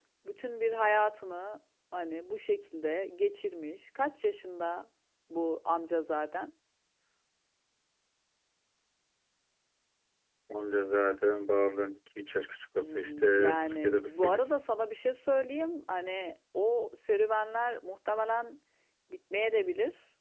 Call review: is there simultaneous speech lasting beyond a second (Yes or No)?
Yes